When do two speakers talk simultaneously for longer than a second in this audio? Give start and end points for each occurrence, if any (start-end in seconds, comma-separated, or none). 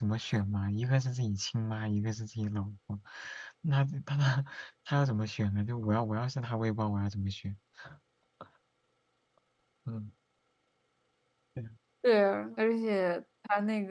none